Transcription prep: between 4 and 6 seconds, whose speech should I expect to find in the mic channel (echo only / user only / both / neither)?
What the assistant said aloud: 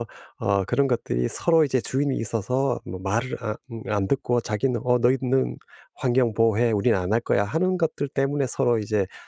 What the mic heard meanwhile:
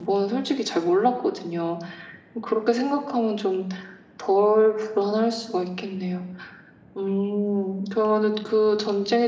user only